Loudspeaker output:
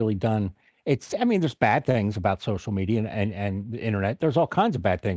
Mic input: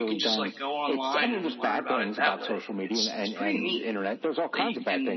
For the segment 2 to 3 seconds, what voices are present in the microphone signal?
both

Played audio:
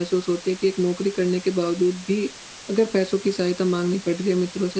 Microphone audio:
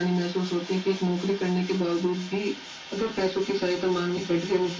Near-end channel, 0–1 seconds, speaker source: echo only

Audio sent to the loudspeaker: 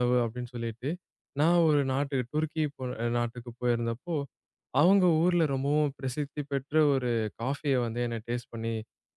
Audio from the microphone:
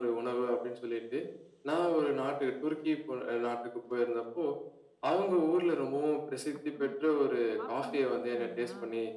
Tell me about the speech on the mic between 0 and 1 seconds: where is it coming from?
echo only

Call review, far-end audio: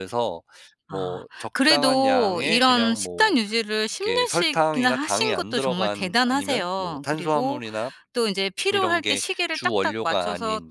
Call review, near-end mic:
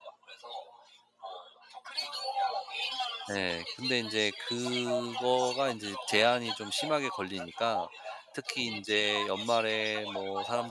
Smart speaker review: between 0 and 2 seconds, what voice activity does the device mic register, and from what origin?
echo only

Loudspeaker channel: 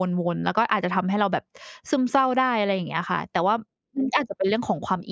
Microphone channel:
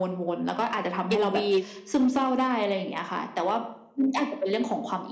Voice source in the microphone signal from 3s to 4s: echo only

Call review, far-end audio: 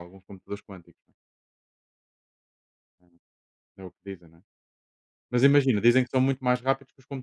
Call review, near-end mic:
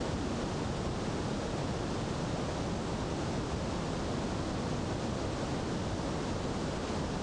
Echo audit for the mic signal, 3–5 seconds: neither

